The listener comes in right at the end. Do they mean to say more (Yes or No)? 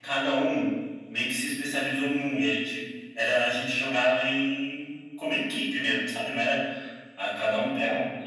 No